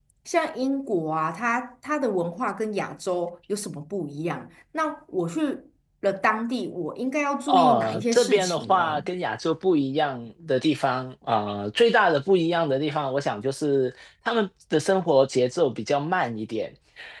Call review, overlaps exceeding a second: present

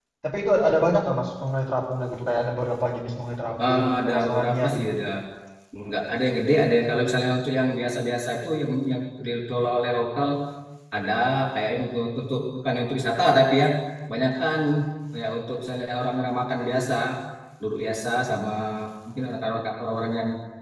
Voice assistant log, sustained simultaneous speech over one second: present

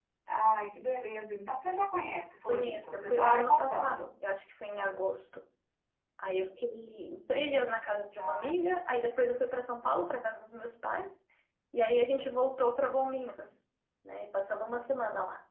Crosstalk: present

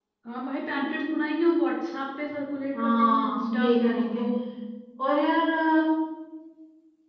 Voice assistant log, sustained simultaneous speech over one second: present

